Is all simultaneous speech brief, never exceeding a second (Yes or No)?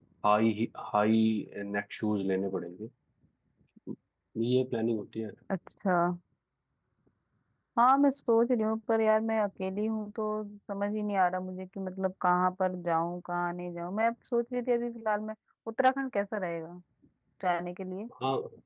Yes